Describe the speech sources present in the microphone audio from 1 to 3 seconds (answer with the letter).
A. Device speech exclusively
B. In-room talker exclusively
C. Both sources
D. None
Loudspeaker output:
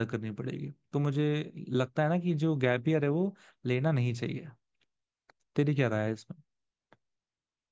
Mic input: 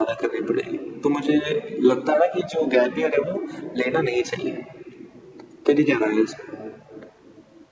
A